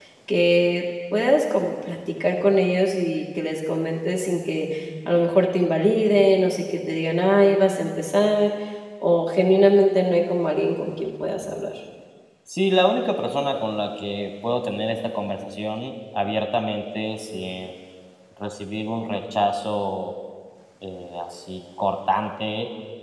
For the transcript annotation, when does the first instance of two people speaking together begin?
none

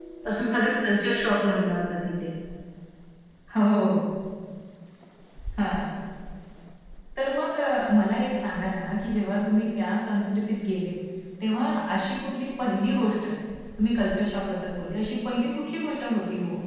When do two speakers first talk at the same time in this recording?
none

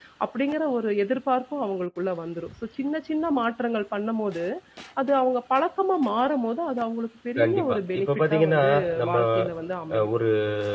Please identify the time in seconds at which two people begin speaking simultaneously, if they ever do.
7 s

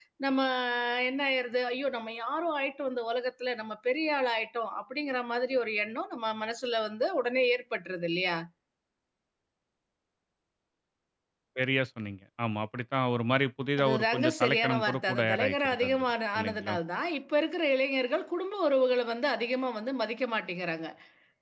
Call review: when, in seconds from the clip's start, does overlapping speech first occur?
14 s

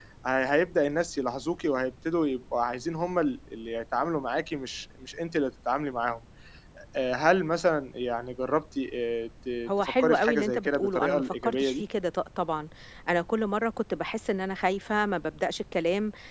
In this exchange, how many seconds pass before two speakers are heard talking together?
10 s

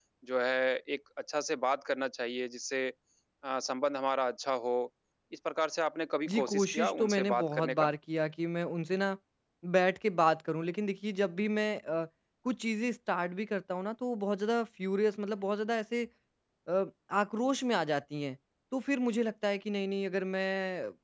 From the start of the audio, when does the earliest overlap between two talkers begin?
6 s

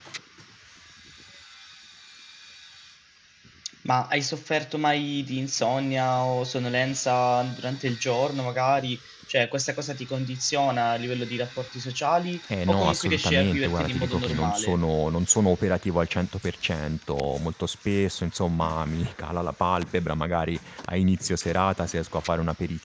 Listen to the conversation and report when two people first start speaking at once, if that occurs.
12 s

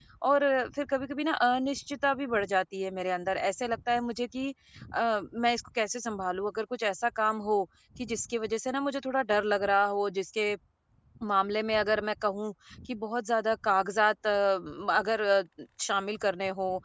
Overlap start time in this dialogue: none

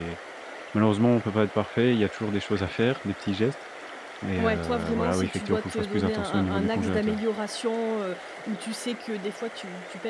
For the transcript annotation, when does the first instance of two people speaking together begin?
4 s

